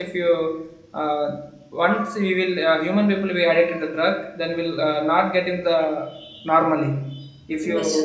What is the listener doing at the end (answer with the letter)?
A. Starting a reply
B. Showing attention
B